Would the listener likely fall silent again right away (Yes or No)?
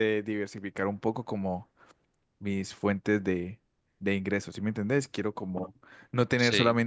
Yes